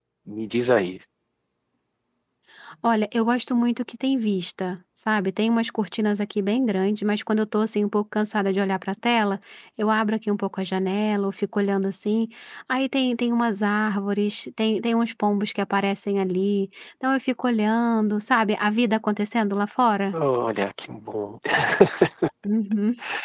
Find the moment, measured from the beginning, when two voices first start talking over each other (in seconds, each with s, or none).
none